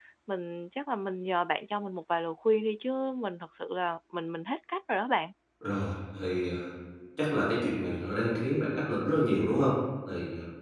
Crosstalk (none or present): none